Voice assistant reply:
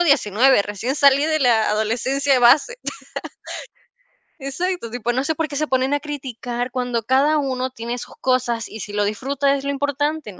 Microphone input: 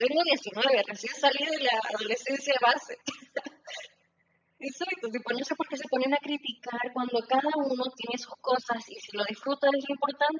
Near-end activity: none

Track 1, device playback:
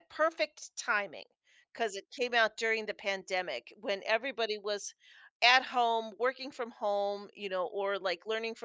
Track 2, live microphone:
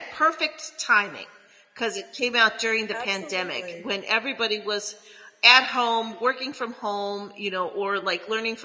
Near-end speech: present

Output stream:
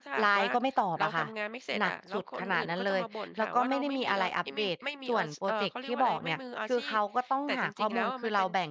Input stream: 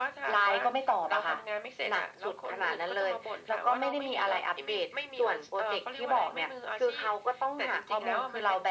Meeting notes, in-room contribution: none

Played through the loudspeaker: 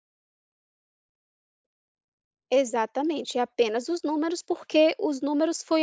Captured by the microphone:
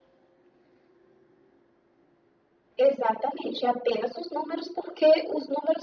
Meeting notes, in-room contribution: none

